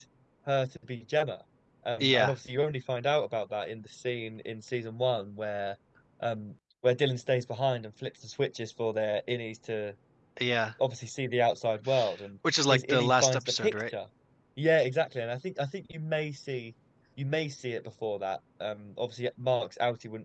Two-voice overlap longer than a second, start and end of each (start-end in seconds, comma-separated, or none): 12.7-13.9